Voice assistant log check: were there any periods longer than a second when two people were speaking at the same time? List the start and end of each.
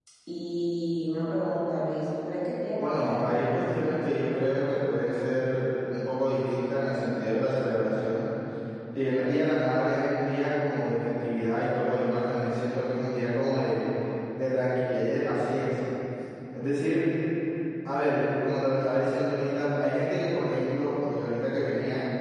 2.8-4.8

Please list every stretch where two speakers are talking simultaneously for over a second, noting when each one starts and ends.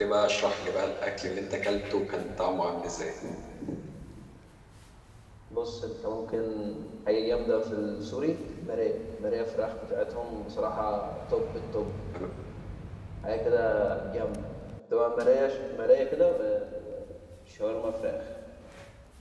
none

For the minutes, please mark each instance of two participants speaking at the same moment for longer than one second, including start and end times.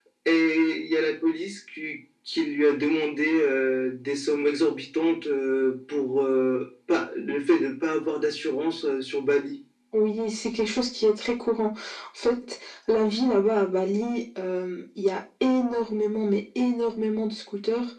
none

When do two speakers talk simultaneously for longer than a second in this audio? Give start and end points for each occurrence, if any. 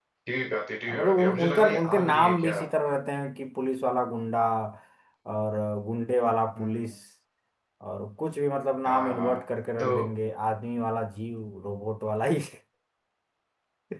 0.9-2.6

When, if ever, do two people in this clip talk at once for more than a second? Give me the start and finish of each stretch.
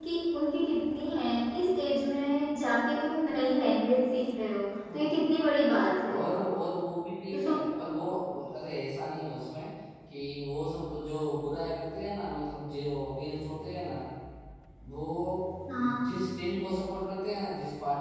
none

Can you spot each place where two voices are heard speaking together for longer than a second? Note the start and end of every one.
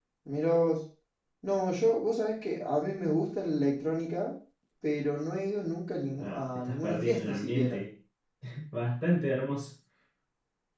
6.2-7.8

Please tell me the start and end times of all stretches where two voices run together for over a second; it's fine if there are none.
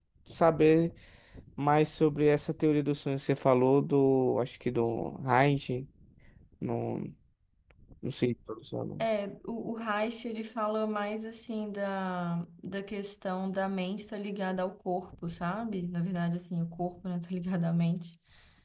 none

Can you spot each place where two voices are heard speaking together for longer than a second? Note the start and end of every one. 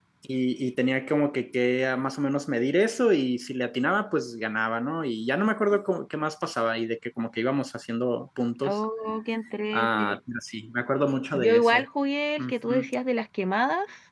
none

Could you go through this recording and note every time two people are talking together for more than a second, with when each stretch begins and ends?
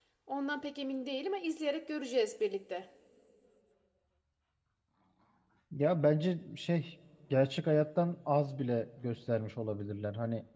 none

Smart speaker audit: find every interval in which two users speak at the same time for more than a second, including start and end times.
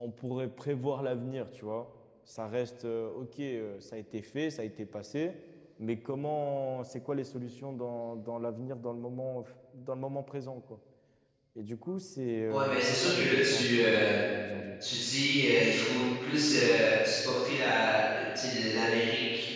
12.5-14.3

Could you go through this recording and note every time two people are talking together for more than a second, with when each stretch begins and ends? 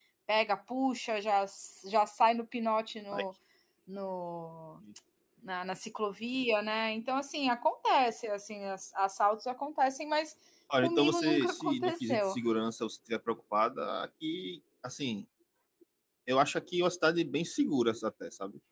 10.8-12.4

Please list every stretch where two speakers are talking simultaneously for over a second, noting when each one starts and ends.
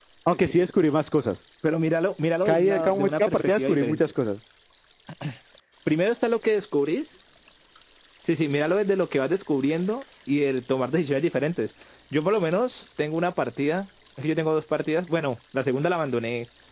2.5-4.0

